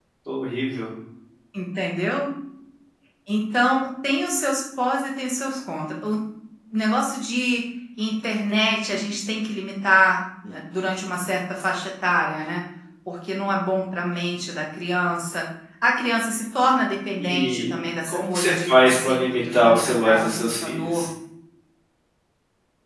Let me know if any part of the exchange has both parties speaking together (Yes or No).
Yes